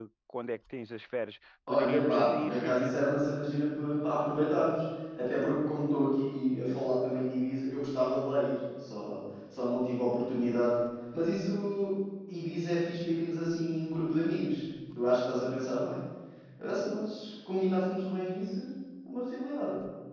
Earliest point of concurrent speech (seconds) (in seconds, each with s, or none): 1.7 s